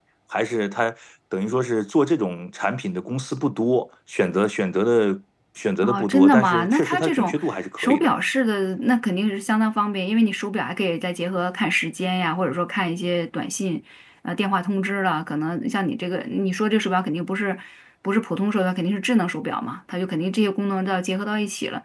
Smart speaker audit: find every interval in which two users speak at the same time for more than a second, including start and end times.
5.8-7.3

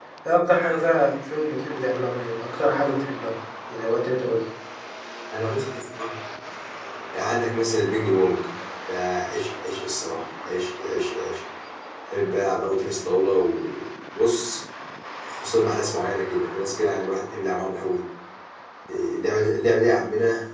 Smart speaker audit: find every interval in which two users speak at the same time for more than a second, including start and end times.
none

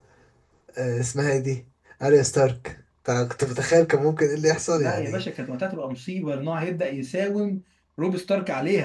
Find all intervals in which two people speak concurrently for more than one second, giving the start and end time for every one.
none

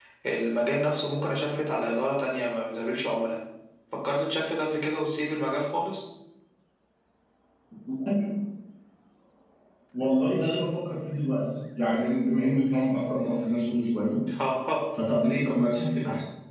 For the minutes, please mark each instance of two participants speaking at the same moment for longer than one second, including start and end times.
none

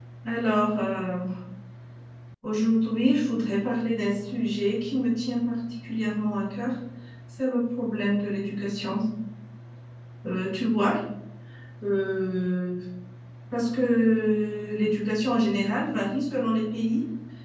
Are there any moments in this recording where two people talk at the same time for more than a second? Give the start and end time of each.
none

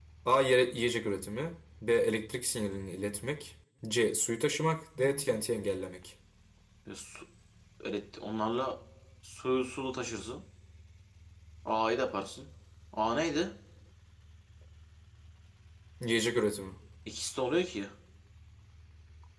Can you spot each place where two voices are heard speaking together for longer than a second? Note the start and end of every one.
none

